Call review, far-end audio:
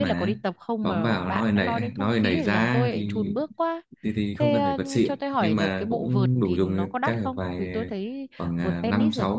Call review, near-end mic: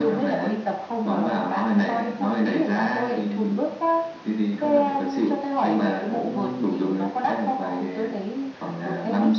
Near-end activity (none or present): none